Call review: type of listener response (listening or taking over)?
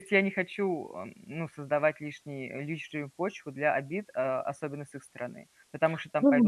taking over